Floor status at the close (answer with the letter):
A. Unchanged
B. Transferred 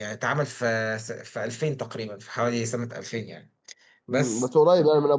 B